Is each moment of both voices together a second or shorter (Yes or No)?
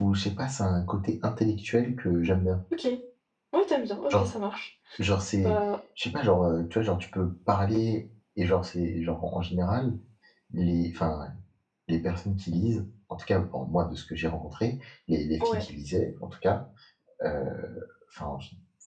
Yes